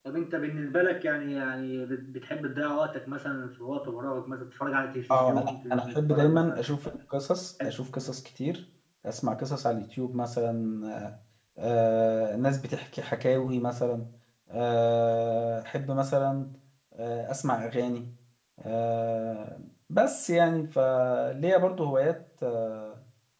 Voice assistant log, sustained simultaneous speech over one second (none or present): present